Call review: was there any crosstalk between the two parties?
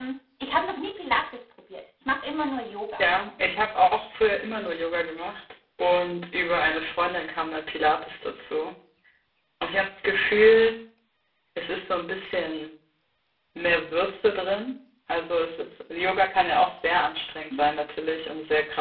No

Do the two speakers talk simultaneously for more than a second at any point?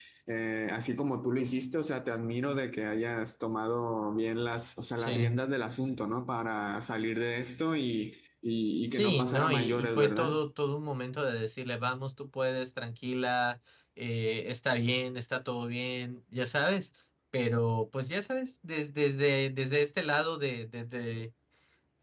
Yes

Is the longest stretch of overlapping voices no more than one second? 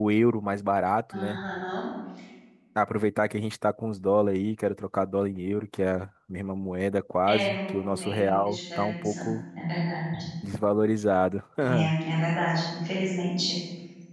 No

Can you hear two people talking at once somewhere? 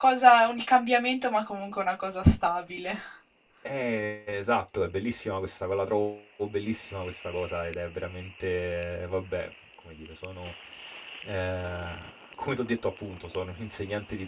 No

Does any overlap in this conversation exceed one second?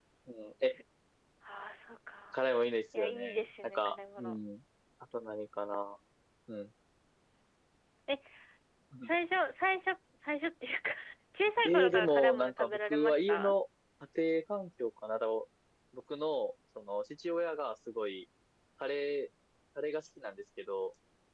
Yes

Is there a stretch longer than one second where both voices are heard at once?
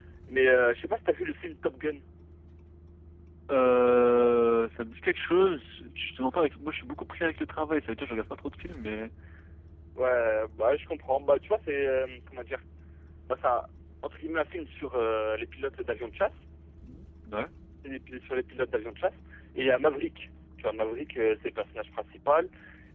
No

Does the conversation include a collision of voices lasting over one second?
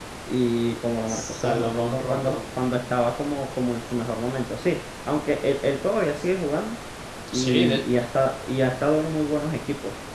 Yes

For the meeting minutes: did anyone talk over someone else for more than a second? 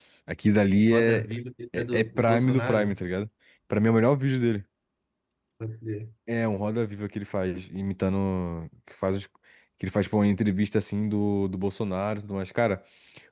Yes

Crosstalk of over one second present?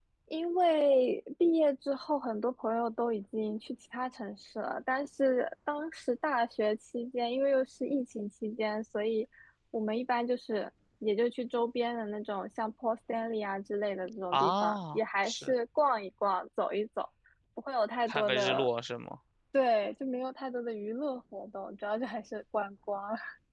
Yes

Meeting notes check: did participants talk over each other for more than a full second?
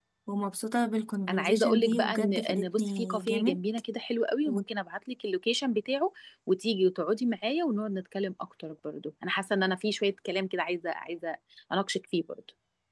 Yes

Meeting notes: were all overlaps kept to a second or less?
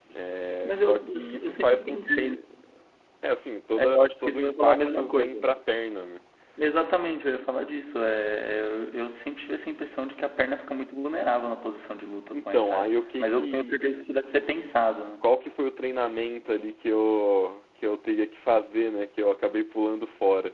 No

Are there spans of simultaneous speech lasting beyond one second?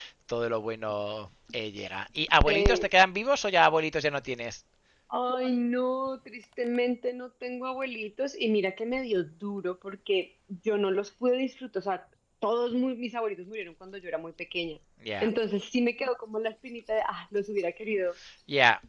No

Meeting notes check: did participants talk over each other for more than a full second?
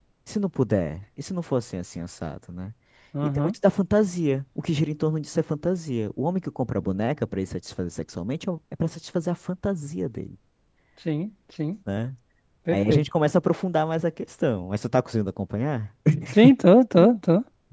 No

